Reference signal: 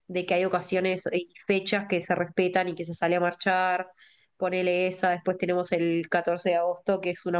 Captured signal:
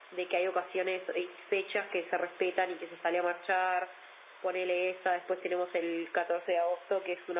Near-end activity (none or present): none